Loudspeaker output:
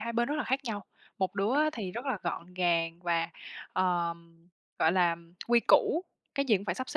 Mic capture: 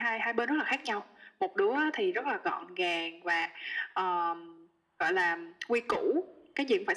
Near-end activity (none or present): none